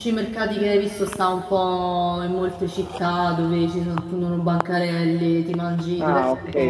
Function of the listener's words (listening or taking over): taking over